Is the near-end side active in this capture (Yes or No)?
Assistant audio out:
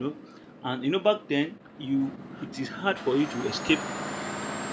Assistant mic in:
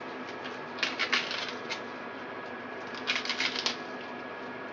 No